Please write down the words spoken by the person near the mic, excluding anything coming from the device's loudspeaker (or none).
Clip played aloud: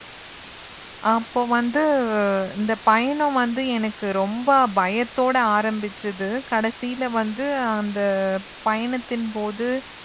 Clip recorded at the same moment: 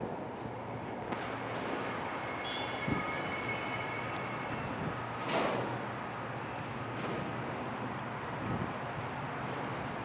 none